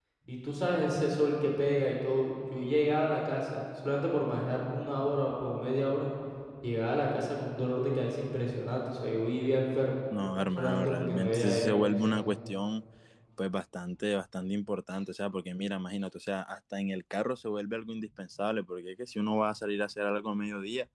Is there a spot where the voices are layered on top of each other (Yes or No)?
Yes